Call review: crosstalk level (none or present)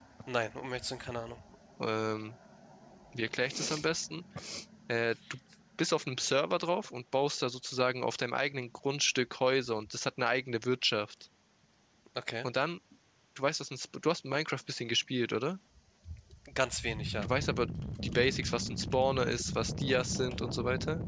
none